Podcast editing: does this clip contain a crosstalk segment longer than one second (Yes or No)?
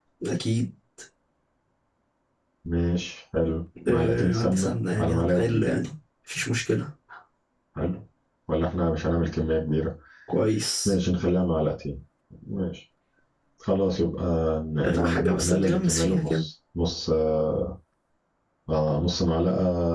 Yes